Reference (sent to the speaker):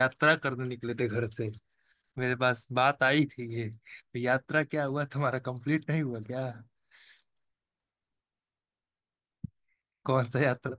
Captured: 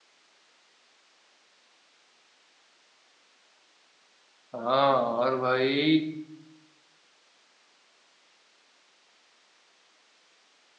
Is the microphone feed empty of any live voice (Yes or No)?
No